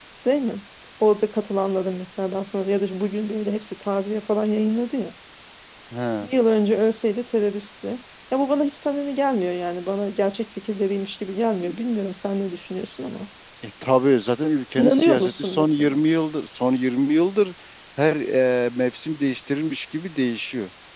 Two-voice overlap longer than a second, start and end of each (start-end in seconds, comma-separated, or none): 14.8-16.0